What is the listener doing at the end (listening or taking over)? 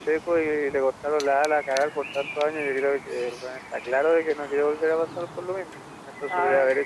listening